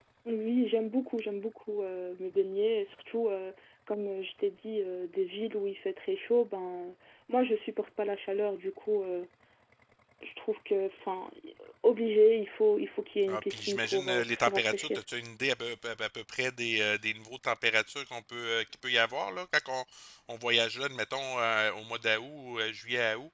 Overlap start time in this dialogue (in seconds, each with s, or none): 13.3 s